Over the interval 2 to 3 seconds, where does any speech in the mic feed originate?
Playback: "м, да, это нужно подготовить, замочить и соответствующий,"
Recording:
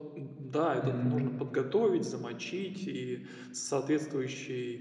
echo only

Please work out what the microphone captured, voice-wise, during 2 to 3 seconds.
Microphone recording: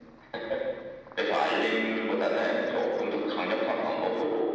echo only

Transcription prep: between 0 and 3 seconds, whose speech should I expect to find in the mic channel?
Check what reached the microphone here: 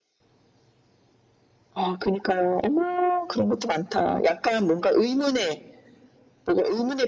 echo only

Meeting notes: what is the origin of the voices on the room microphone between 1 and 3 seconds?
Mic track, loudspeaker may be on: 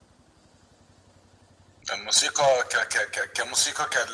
echo only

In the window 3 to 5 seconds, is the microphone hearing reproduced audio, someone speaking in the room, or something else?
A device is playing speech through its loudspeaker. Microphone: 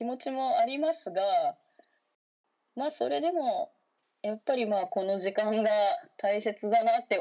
echo only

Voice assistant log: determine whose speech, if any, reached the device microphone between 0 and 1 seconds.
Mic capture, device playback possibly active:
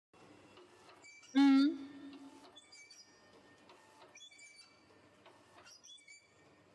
neither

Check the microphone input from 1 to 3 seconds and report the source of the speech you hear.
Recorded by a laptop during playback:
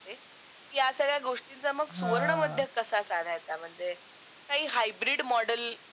both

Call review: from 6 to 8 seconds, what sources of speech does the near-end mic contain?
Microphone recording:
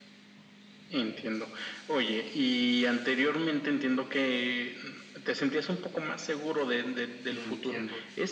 both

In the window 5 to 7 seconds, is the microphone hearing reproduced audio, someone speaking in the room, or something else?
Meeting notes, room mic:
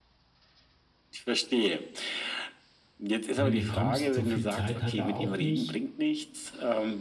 both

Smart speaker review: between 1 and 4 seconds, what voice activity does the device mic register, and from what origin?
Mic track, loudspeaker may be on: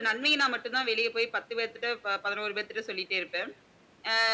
echo only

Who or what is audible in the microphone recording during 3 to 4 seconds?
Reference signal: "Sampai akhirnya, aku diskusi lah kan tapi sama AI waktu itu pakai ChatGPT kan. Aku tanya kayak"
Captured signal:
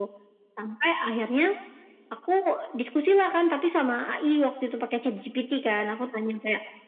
echo only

